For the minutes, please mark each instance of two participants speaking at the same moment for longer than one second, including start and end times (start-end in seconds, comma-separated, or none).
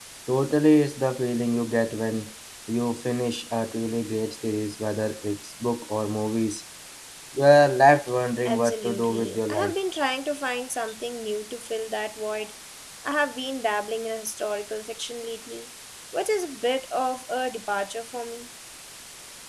8.4-9.7